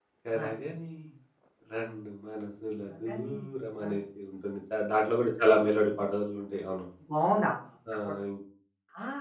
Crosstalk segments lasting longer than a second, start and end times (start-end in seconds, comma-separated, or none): none